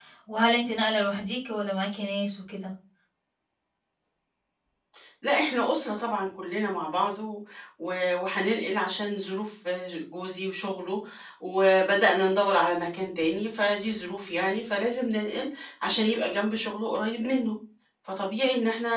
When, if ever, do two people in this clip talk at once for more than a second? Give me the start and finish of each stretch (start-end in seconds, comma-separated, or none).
none